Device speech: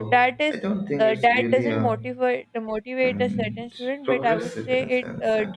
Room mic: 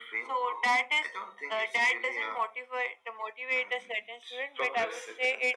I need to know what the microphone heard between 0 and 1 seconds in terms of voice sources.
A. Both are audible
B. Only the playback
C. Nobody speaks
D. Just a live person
B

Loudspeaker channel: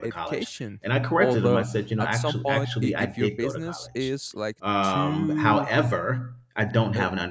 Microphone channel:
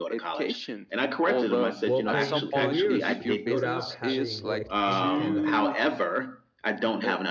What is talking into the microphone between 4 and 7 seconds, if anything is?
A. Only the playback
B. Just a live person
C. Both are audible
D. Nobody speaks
C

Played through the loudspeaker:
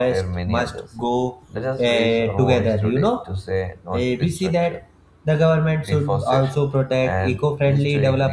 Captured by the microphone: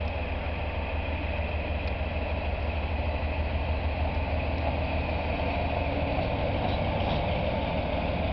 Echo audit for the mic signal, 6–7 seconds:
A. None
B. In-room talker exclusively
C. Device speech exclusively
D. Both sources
A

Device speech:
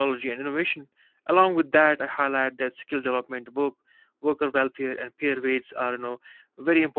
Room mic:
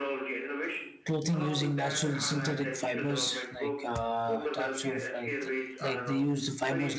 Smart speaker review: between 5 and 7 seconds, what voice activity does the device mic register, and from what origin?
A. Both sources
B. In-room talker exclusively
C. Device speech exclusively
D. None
A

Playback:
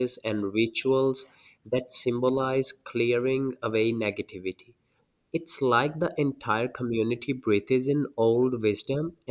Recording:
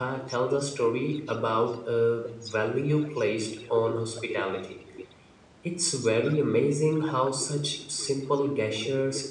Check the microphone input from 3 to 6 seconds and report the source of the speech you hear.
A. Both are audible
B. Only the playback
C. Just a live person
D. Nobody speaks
A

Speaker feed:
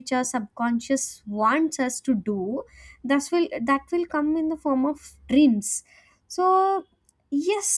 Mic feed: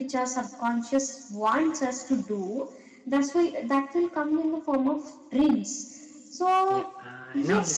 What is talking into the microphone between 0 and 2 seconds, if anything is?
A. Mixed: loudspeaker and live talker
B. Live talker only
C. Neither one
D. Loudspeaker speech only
D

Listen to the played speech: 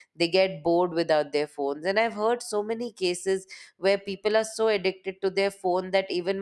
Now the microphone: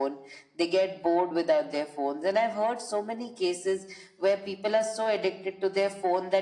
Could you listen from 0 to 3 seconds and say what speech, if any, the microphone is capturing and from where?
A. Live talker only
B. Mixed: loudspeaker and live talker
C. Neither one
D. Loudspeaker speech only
D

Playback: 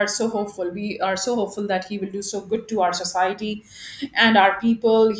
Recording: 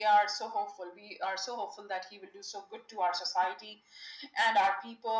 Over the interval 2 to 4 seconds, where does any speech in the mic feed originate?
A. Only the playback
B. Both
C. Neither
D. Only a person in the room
A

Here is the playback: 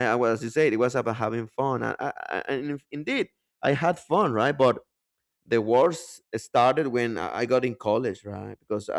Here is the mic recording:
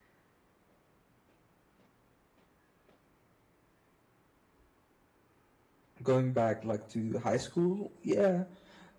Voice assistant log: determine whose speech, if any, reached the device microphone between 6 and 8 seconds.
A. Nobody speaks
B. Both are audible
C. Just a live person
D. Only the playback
C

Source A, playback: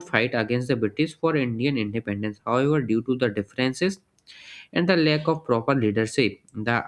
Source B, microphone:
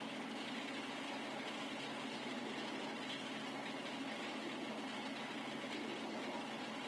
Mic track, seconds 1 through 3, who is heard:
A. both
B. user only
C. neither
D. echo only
C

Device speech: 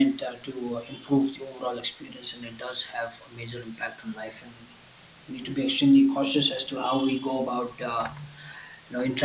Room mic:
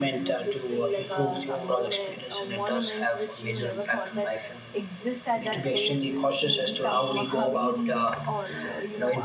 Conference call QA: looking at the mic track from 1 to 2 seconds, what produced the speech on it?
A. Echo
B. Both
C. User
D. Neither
B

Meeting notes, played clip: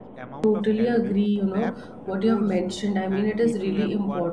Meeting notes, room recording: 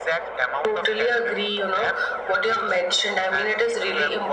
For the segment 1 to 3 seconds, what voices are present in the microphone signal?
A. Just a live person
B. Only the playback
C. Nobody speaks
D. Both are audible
B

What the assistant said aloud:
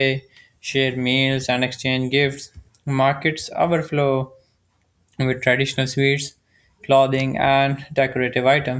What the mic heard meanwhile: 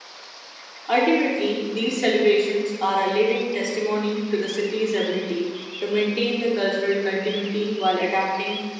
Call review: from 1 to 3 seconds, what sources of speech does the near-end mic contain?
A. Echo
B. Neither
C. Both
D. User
D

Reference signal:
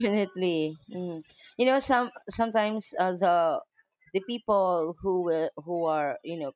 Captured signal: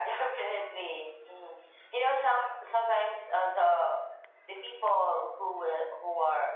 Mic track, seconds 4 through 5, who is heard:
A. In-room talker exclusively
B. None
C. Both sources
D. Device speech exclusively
D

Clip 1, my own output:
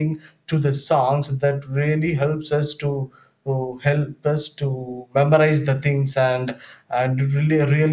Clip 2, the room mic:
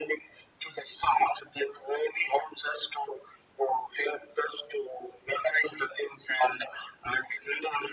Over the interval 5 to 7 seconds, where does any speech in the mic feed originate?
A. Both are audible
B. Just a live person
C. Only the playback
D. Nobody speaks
C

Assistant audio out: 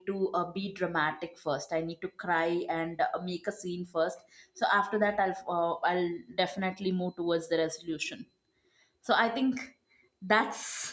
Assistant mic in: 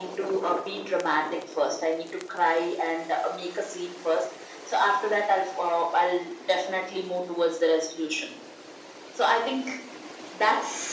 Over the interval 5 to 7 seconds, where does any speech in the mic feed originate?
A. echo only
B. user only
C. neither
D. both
A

